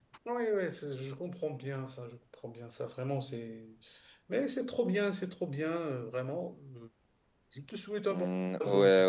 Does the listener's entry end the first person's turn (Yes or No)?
Yes